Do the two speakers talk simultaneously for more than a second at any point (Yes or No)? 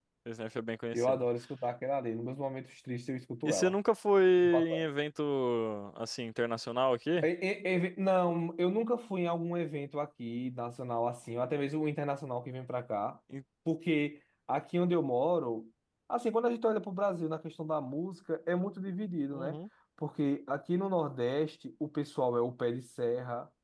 No